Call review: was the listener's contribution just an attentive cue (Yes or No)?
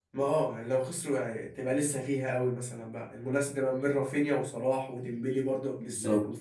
No